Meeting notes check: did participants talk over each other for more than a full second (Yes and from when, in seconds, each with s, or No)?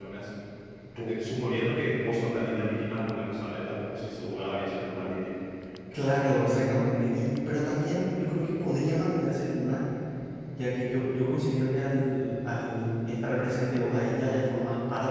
No